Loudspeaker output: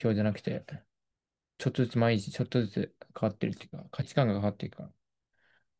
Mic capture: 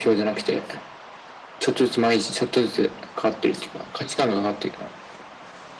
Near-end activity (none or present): none